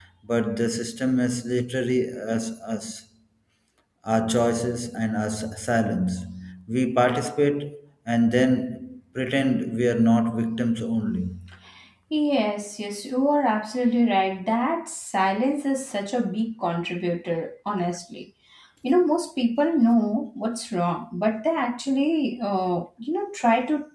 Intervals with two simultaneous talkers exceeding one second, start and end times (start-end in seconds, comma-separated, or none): none